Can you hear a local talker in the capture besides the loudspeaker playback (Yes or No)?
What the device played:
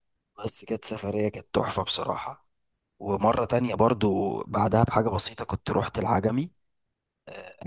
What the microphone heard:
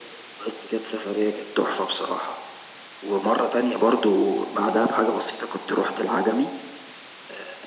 No